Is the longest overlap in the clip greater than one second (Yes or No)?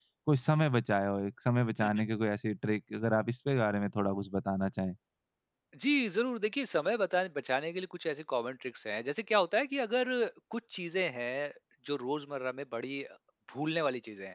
No